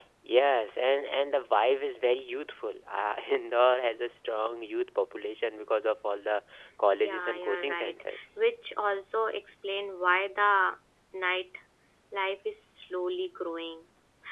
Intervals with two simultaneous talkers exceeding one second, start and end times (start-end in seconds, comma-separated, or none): 7.0-8.2